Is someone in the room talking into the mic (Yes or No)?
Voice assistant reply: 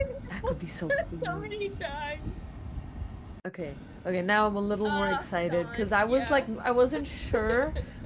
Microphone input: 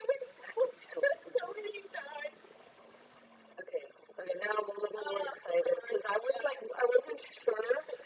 No